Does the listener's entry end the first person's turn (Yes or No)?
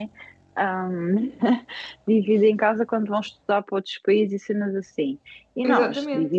No